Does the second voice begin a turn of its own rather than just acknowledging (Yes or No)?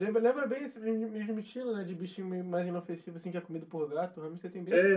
Yes